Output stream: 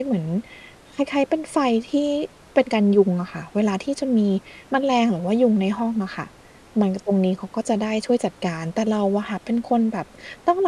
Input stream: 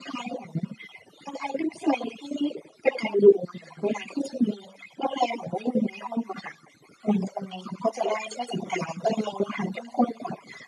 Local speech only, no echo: none

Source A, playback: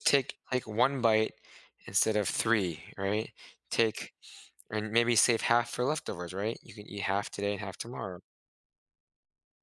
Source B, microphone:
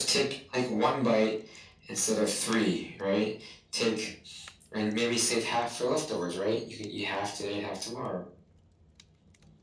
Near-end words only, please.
none

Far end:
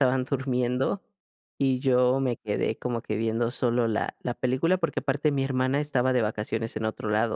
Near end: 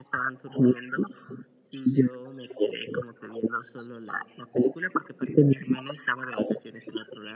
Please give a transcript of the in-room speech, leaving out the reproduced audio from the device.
none

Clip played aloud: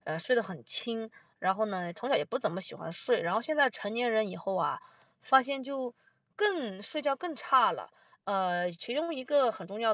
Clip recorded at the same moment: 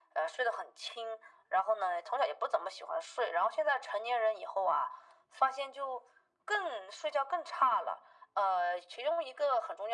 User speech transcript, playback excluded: none

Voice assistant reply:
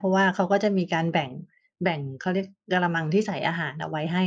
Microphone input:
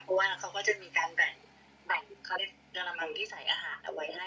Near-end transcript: none

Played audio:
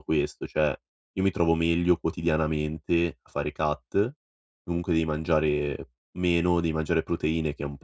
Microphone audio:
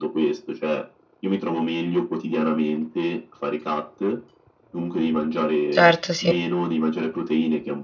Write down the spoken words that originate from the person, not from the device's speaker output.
Certo sì.

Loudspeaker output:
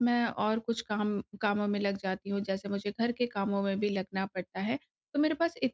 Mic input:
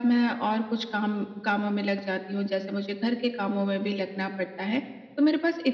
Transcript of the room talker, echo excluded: none

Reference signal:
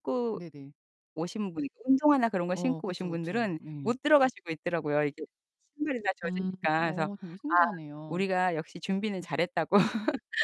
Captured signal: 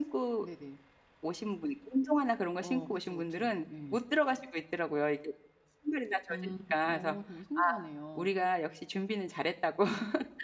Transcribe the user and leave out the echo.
none

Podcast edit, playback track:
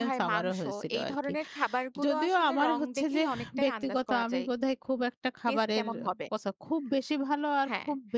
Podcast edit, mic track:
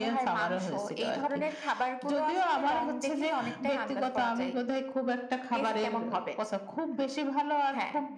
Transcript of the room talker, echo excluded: none

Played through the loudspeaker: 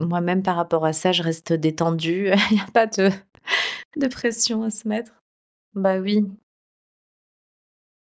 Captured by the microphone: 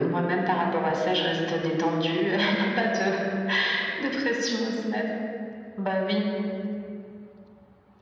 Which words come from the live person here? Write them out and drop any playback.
none

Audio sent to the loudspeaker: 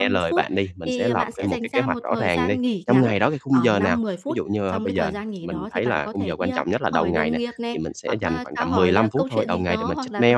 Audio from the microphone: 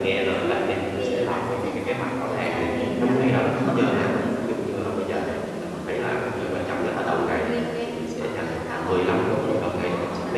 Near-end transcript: Ờ, đúng rồi.

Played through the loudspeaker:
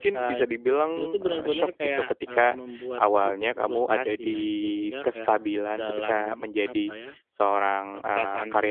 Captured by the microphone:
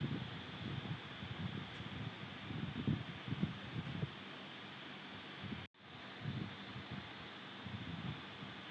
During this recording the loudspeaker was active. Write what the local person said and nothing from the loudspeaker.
none

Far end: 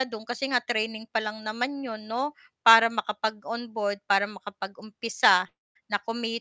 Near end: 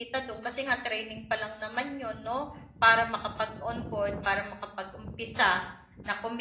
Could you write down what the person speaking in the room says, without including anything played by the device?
none

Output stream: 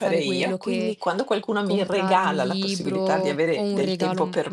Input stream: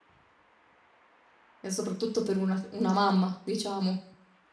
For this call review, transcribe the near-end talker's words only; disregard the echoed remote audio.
E soprattutto per una c una mamma, diciamo,

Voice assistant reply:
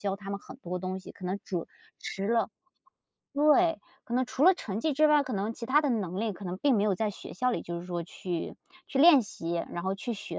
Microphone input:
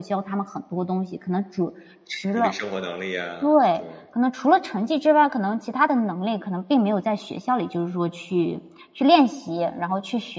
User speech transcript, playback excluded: 独立生活能力呀，对。

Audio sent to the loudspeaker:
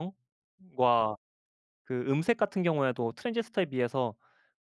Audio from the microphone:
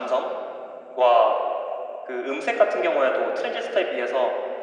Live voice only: none

